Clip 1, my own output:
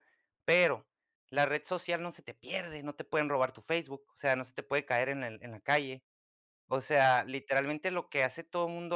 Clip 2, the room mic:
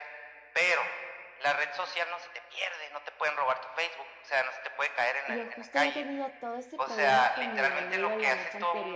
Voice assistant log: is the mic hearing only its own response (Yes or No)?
No